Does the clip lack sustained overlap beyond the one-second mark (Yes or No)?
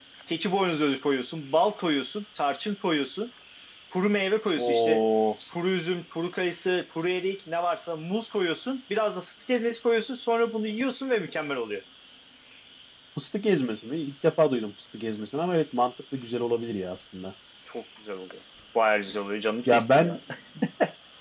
Yes